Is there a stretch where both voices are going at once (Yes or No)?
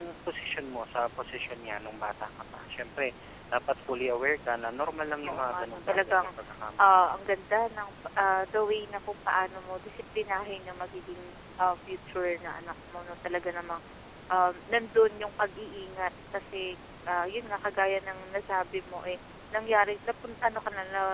Yes